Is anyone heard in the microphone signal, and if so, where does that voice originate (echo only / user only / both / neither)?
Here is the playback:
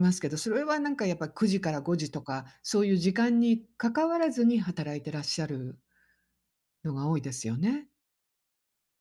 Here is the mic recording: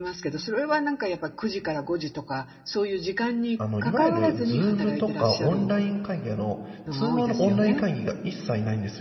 both